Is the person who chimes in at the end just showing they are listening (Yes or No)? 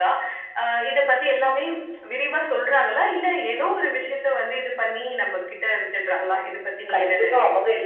No